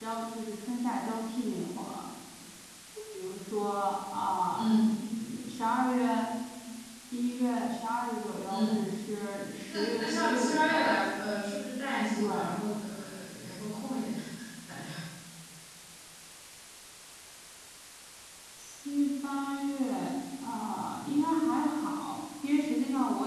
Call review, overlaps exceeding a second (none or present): present